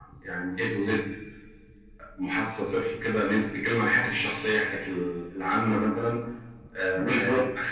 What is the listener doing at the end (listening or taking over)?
listening